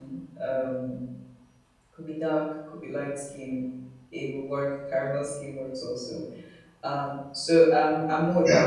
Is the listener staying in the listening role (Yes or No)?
No